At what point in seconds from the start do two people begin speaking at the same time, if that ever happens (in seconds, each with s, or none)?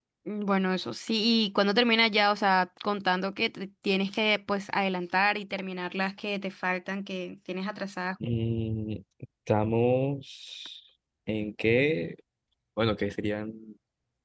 none